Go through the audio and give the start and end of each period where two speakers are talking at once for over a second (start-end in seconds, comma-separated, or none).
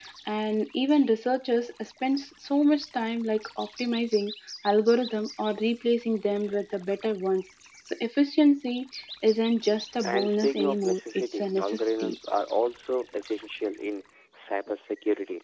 10.0-12.2